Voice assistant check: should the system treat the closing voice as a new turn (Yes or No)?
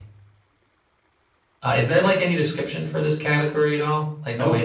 Yes